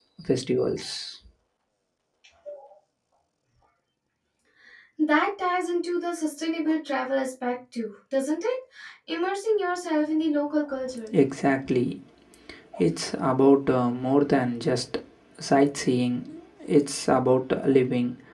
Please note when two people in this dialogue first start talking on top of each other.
none

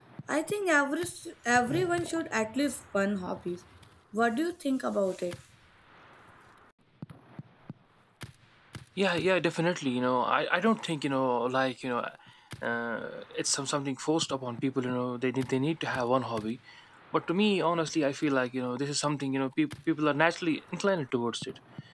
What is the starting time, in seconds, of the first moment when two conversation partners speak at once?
none

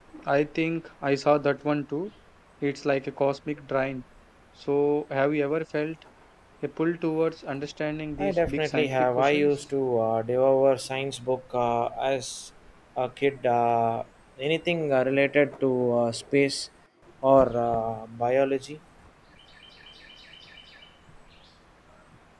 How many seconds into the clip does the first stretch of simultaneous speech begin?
8.2 s

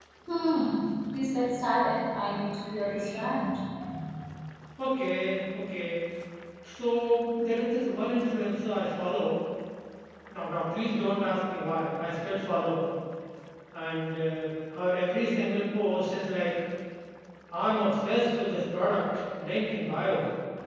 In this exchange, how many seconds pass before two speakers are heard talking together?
none

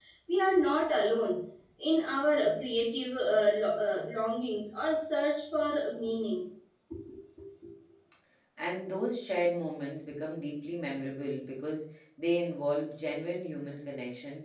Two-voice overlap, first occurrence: none

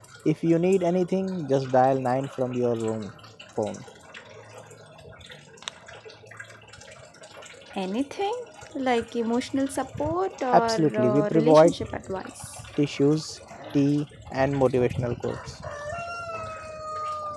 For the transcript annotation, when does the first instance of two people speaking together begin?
10.5 s

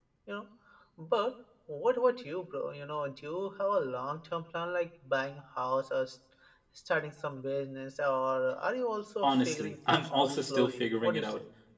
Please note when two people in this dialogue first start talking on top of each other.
9.2 s

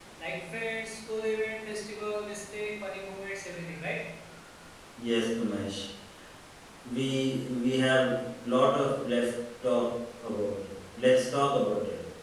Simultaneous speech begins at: none

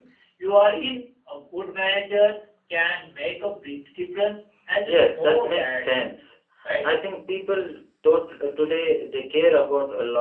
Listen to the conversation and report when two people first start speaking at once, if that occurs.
4.9 s

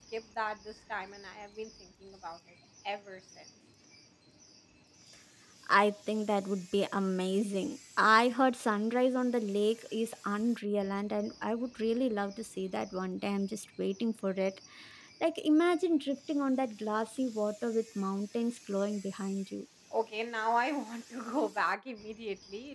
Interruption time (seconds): none

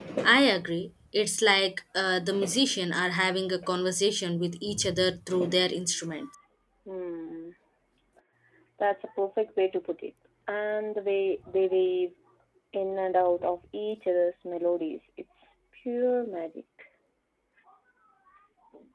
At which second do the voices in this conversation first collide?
none

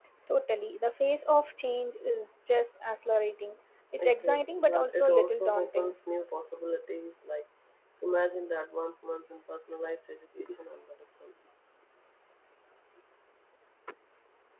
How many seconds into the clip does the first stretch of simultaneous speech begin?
4.0 s

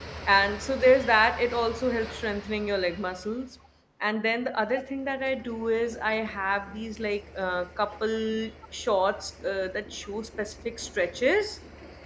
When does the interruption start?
none

